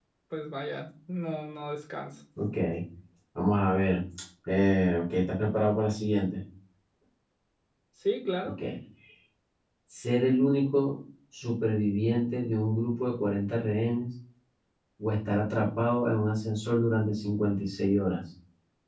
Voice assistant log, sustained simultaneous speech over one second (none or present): none